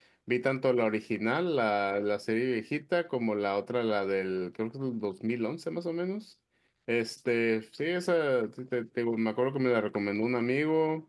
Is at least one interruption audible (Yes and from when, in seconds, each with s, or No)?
No